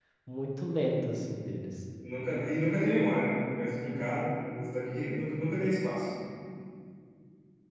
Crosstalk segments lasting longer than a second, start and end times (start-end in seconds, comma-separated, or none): none